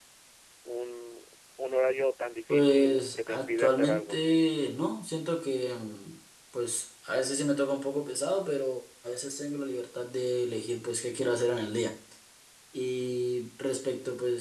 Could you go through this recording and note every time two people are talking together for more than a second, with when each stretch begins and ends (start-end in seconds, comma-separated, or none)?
2.5-4.2